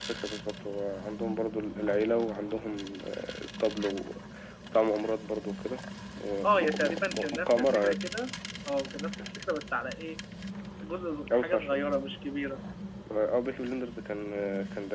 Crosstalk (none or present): present